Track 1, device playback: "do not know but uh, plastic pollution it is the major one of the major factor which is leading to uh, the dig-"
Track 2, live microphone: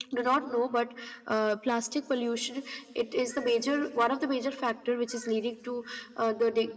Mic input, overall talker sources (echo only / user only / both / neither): echo only